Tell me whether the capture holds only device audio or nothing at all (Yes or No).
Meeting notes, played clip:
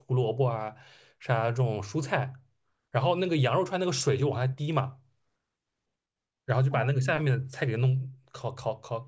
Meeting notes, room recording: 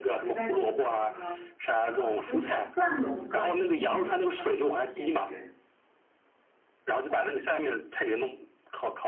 No